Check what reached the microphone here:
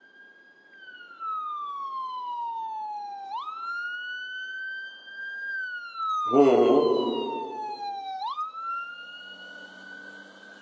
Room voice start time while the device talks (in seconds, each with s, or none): 6.3 s